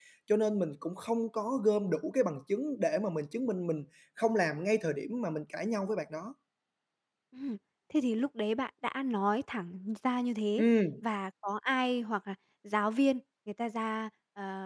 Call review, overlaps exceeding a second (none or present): none